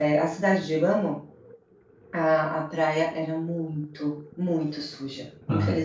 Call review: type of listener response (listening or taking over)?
taking over